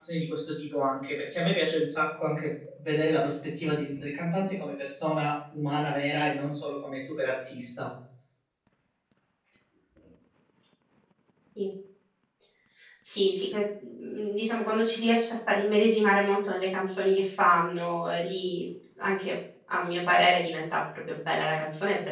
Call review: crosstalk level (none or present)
none